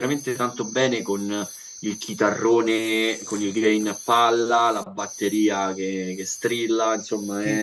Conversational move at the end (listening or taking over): taking over